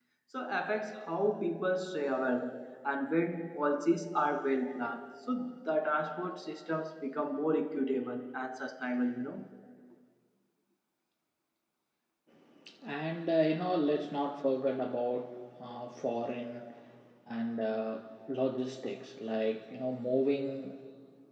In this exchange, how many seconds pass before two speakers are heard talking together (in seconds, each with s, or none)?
none